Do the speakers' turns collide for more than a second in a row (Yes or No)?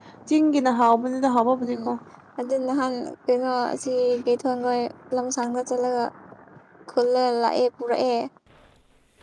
No